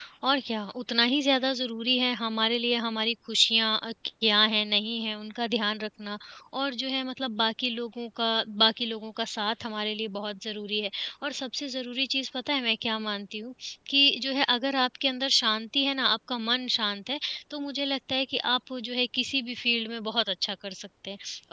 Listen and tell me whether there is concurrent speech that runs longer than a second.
No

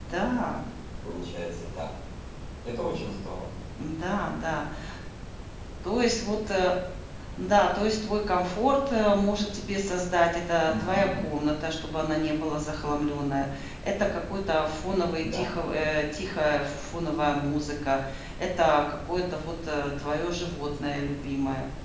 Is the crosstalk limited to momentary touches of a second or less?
Yes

